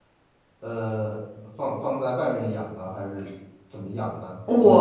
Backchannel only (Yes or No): No